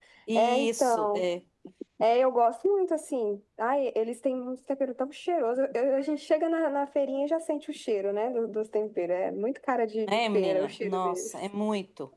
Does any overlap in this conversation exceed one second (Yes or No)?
Yes